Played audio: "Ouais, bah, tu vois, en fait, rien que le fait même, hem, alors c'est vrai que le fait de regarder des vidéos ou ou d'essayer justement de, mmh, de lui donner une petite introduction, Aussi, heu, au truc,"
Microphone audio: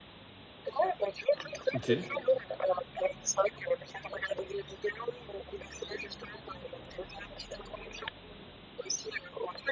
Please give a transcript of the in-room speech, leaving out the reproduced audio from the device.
OK,

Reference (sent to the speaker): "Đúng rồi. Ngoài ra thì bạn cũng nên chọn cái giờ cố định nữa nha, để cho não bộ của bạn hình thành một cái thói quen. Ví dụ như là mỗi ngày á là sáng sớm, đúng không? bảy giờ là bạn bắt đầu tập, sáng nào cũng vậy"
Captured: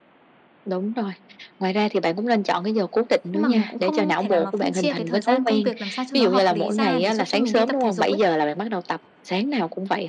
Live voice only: Nhưng mà mình cũng không thể nào mà phân chia cái thời gian công việc làm sao cho nó hợp lý ra để giúp cho mình đi tập thể dục ấy.

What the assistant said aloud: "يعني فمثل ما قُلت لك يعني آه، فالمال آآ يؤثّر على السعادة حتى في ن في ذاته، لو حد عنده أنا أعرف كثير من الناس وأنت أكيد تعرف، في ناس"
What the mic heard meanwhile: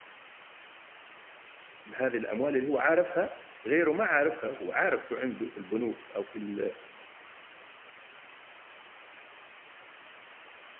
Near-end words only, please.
بهذه الأموال اللي هو عارفها غيره ما عارفها، هو عارف شو عنده في البنوك أو في ال

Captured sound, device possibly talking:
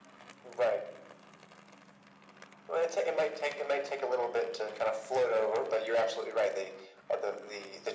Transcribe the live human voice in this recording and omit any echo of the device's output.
none

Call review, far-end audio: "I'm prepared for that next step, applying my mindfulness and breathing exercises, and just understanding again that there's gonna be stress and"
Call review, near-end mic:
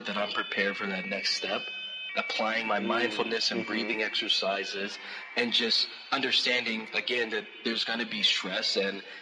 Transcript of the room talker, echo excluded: Mm. Mhm.

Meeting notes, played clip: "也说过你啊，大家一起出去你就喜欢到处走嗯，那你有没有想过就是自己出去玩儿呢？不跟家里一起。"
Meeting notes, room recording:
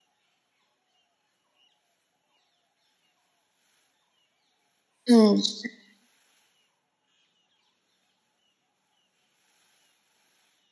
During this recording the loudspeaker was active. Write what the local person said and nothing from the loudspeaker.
嗯，是

